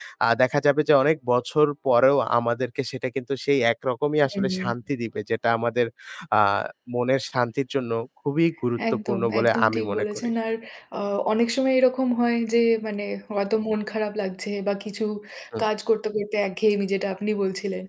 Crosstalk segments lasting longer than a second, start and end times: 9.1-10.3

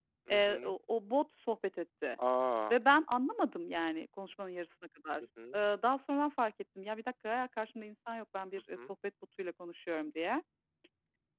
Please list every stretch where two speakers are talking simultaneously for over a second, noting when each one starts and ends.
none

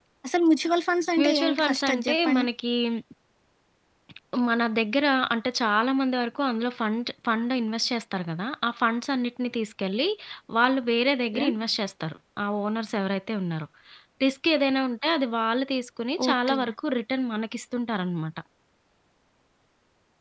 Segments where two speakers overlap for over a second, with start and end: 1.2-2.5

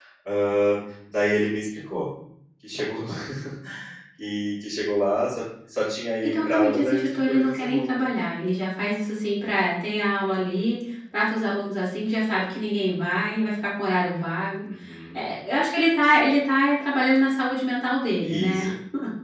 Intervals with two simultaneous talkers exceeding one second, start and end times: 6.2-7.8

